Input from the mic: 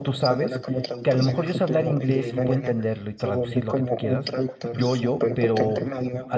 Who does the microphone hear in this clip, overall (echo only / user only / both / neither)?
both